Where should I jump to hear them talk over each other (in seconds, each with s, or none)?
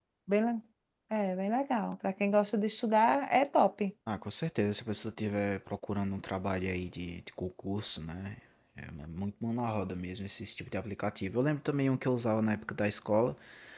none